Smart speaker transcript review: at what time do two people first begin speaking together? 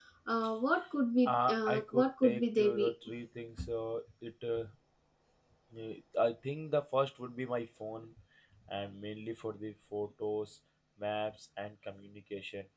1.2 s

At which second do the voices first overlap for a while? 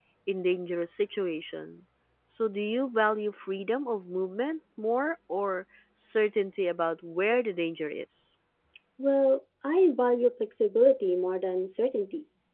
none

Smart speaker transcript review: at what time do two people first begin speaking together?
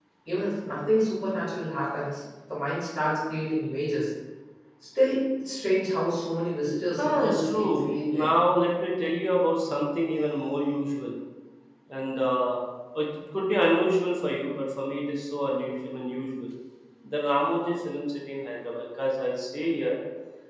7.0 s

